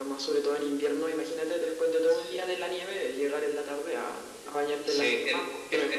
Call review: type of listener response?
taking over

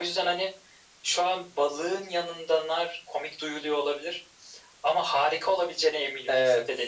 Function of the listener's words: taking over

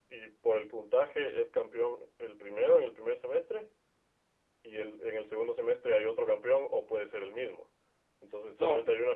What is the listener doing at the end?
listening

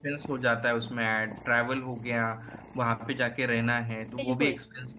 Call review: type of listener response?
listening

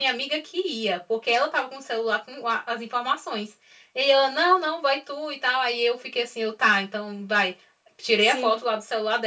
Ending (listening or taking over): listening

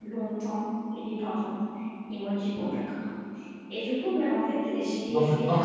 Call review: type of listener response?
taking over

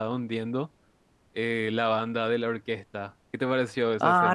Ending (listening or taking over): taking over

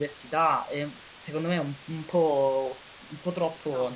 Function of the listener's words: taking over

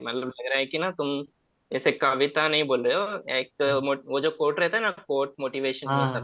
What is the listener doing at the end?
taking over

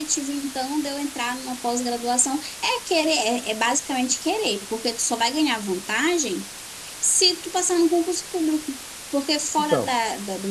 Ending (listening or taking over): listening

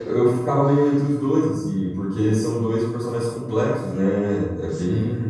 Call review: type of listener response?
listening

